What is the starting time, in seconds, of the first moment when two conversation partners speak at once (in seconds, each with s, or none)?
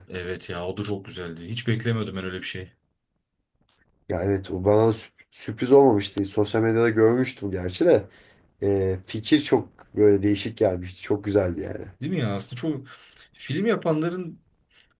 none